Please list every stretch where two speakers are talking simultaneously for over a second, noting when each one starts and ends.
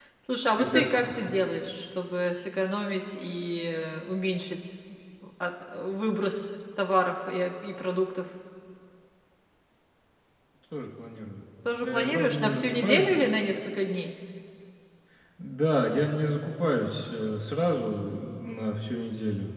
11.8-13.0

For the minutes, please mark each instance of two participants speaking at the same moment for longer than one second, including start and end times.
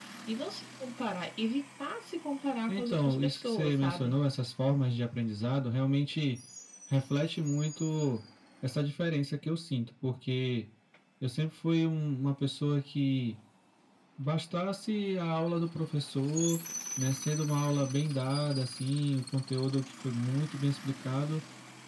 2.7-4.1

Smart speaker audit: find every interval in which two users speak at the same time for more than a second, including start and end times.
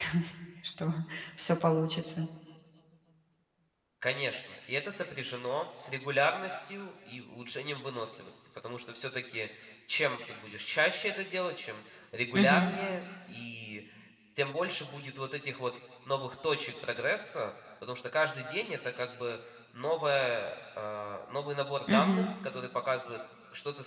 none

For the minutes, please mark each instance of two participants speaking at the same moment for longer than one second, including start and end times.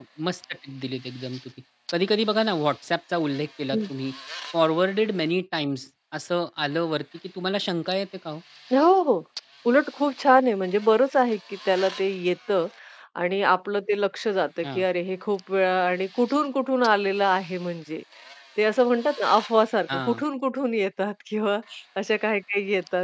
none

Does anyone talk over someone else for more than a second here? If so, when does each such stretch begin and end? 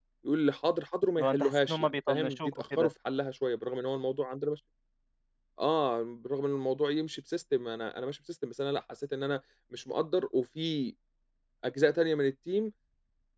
1.2-2.9

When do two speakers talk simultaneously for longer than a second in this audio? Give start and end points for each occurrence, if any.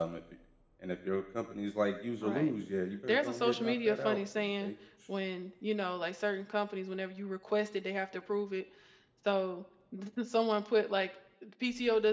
3.1-4.7

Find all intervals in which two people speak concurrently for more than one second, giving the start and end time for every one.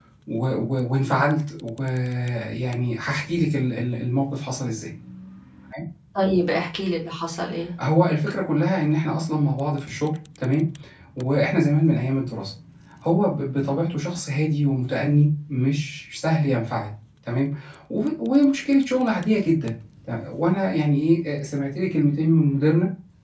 none

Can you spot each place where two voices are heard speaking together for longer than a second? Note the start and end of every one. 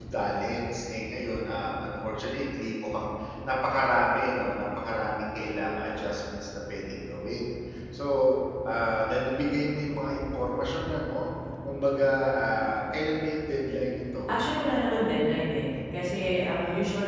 none

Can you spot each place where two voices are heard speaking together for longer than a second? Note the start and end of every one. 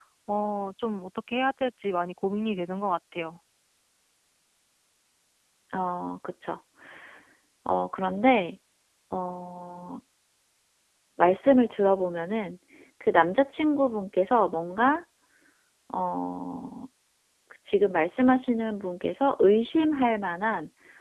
none

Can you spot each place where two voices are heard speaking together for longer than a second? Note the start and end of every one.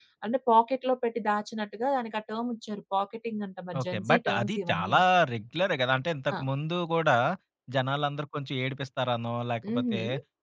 3.8-5.0

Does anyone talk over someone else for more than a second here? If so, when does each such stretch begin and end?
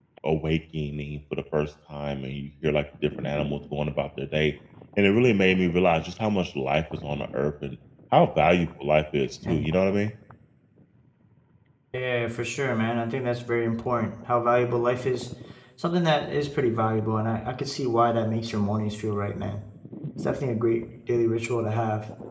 none

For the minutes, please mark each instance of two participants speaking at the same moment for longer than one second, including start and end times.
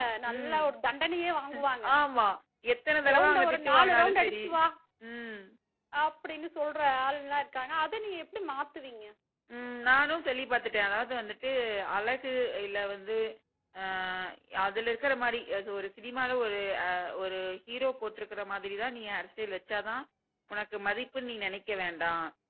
3.1-4.4

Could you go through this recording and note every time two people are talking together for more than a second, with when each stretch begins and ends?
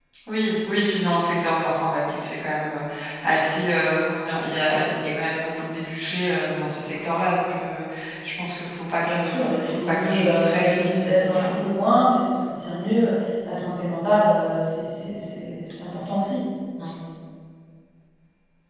9.0-11.5

